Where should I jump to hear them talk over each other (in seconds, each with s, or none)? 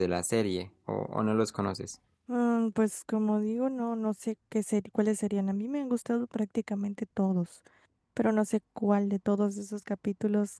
none